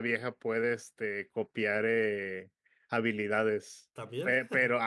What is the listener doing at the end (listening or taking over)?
listening